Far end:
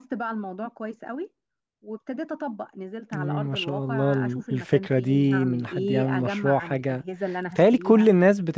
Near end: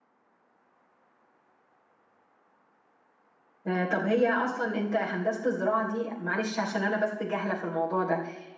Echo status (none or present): none